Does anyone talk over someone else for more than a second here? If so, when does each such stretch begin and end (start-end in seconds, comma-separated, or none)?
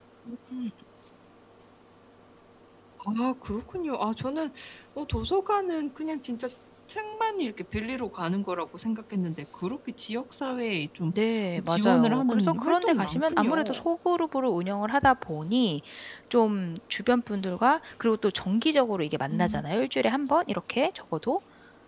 11.6-13.8